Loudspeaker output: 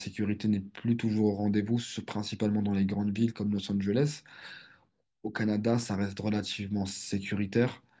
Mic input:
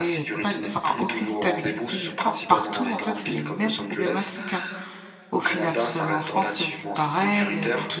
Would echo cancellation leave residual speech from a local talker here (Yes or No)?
Yes